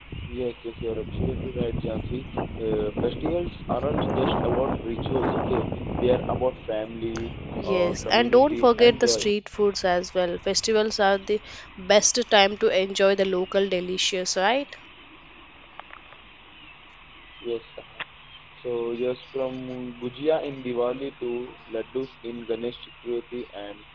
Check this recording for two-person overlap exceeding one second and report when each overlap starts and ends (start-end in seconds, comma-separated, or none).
7.6-9.3